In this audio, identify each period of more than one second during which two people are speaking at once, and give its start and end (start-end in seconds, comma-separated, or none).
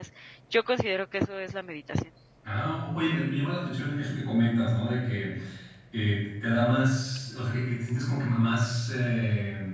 none